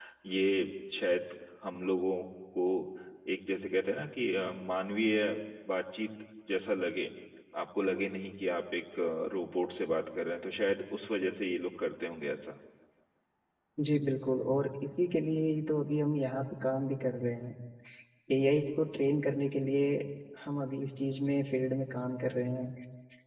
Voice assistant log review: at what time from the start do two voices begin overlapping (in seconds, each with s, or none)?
none